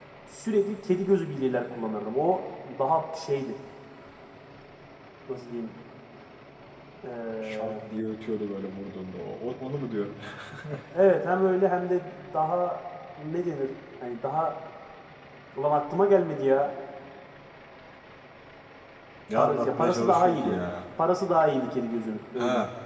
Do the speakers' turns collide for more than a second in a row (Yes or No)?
Yes